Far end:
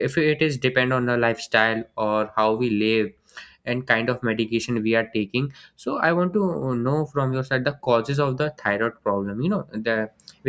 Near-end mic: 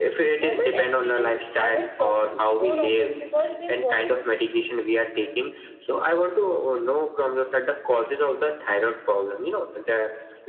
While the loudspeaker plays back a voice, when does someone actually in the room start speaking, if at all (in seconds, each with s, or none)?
0.4 s